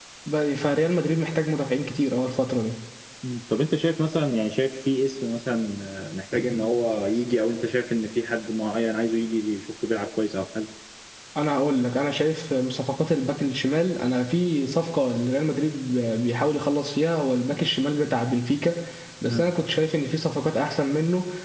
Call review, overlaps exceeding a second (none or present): none